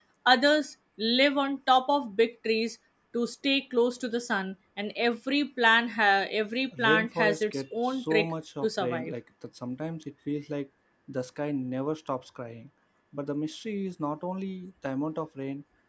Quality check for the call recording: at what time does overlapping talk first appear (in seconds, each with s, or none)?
6.7 s